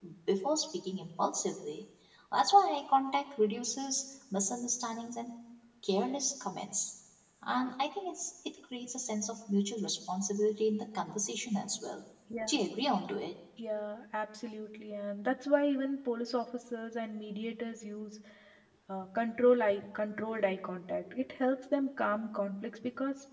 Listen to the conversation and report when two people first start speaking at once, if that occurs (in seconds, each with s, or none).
none